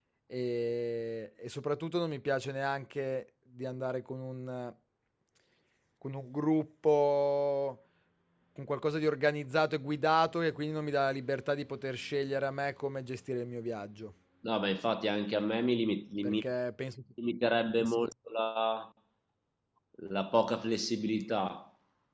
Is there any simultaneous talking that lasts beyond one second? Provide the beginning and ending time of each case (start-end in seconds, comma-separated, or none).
none